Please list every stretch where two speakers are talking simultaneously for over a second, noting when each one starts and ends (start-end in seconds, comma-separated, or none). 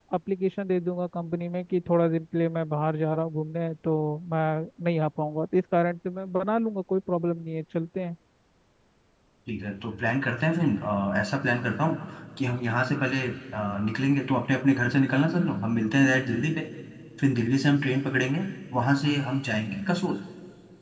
none